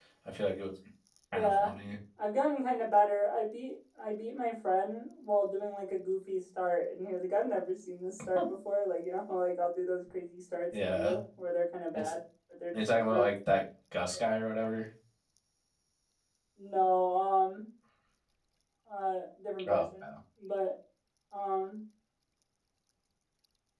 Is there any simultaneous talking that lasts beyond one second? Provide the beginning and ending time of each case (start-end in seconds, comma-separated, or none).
none